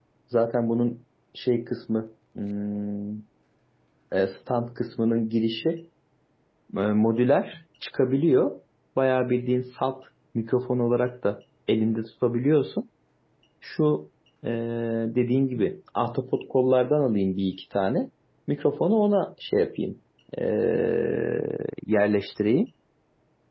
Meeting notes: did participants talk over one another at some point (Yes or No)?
No